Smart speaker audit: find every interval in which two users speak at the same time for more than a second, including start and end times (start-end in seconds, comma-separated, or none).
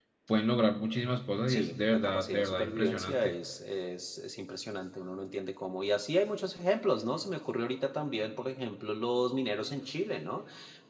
1.5-3.3